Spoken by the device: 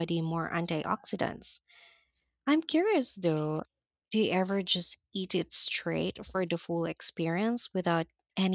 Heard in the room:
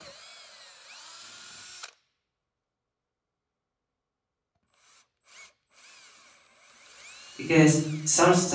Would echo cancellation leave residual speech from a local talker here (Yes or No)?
Yes